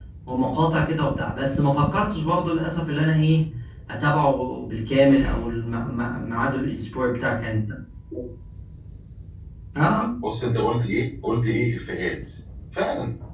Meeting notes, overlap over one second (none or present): none